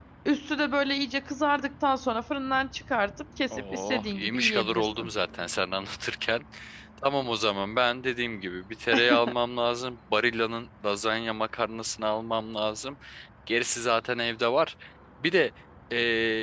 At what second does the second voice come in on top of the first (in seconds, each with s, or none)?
3.5 s